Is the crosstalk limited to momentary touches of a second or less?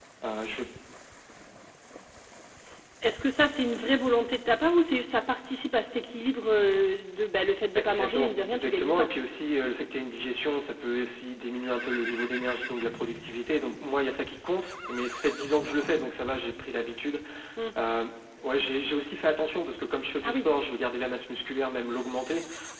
No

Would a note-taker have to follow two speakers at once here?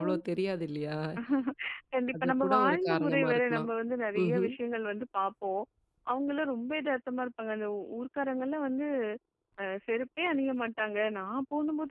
Yes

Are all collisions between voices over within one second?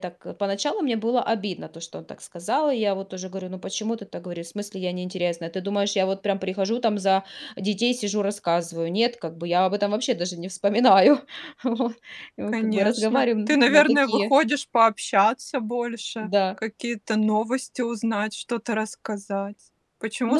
No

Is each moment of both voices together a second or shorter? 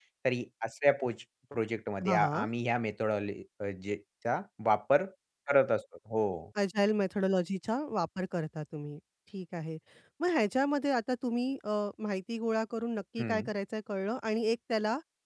Yes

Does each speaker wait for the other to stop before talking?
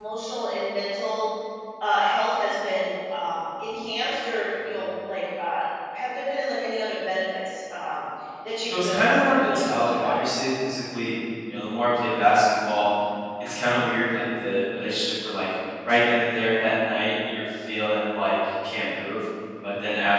No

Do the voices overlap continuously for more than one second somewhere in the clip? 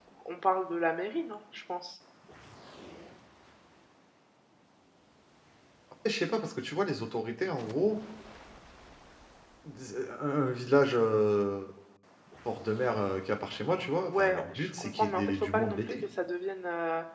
Yes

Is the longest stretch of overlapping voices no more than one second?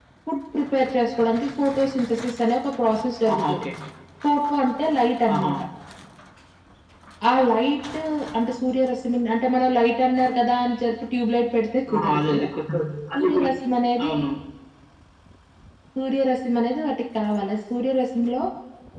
Yes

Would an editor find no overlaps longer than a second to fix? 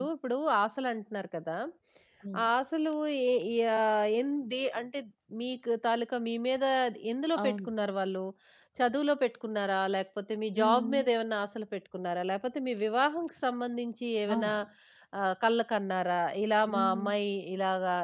Yes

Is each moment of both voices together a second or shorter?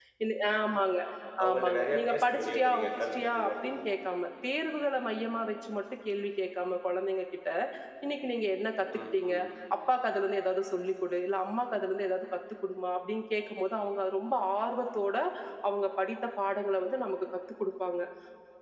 No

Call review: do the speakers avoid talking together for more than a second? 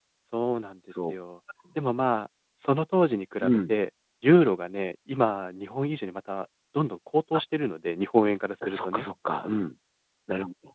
Yes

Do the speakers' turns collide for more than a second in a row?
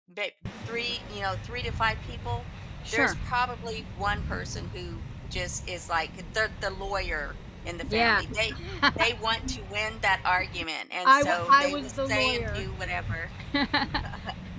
Yes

